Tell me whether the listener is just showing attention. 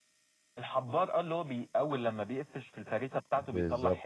No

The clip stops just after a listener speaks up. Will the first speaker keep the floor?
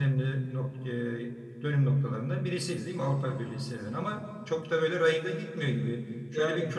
Yes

